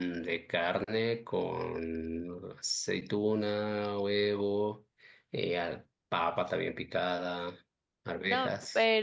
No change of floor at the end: No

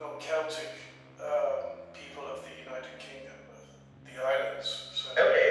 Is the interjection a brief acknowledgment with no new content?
No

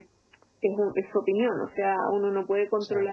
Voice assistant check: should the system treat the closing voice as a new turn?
No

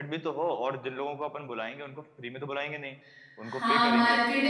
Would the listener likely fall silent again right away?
No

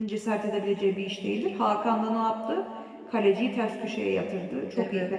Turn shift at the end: Yes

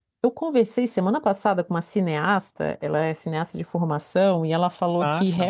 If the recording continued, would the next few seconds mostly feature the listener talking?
No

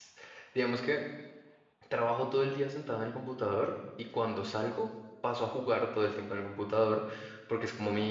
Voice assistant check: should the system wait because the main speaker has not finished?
Yes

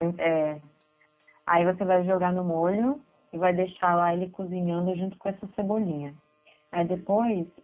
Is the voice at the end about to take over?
No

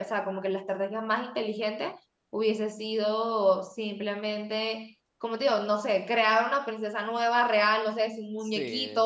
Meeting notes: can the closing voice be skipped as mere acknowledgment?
No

